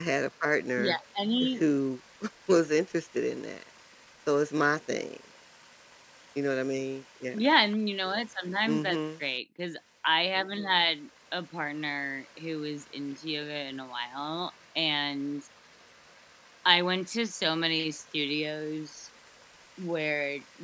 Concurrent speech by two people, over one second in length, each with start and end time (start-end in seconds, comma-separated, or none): none